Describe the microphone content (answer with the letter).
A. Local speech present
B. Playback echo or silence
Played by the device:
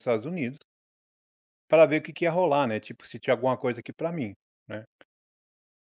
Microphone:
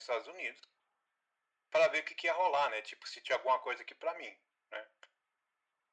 B